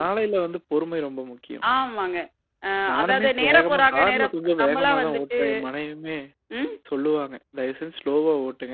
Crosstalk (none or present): present